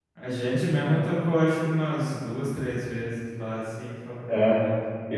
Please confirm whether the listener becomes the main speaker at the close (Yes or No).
Yes